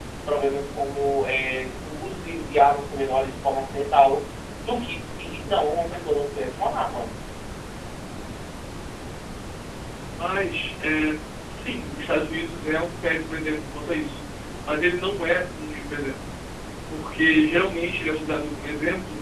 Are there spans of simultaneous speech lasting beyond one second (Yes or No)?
No